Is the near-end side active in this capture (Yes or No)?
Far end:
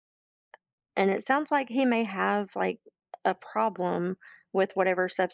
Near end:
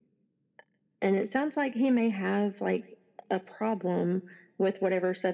No